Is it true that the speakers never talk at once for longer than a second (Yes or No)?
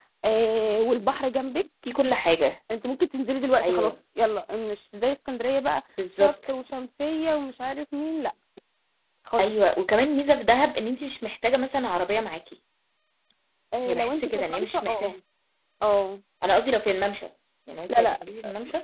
No